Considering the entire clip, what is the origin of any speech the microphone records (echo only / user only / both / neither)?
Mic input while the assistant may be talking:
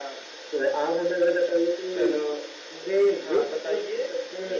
echo only